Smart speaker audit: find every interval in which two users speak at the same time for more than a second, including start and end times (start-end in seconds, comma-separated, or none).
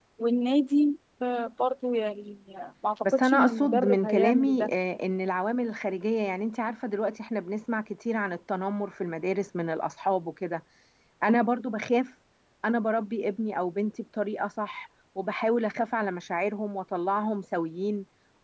3.0-4.7